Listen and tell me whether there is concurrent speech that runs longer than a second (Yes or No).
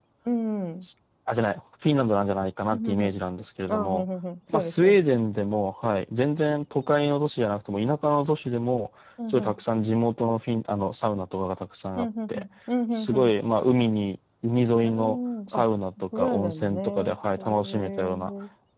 Yes